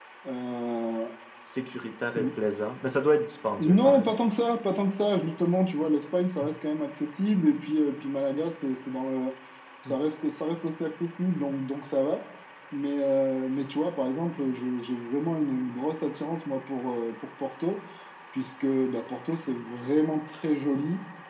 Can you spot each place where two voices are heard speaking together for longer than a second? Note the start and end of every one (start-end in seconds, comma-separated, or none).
none